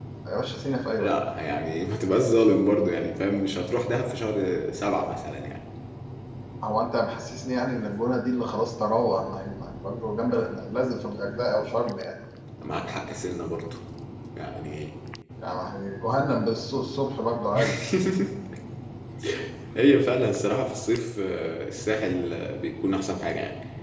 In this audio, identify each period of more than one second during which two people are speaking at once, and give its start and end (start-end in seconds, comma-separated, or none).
none